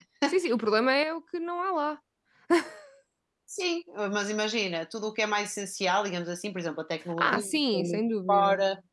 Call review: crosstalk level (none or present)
present